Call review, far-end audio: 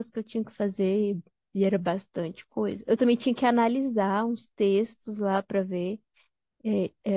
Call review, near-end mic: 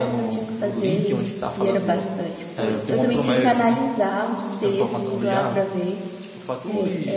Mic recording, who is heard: both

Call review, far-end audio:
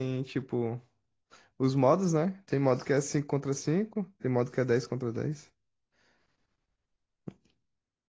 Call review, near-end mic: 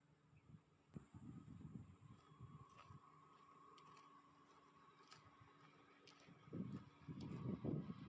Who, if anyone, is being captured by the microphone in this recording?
neither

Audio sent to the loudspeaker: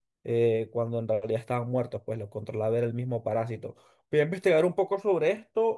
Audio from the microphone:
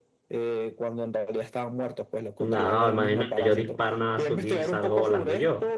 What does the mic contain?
both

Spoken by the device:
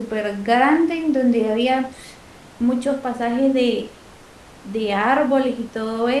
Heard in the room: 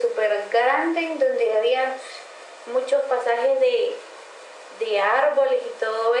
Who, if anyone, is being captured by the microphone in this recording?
echo only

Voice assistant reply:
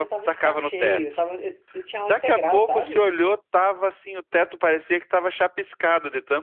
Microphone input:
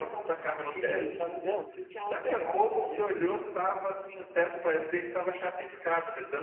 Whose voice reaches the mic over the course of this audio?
both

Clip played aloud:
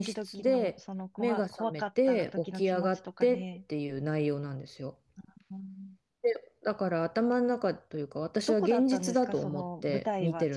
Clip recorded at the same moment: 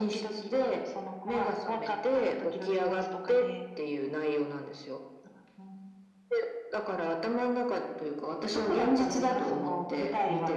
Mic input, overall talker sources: echo only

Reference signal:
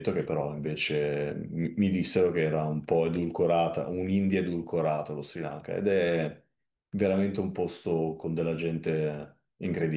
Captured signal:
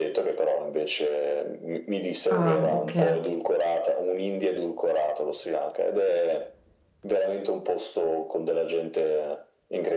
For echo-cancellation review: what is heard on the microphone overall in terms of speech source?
both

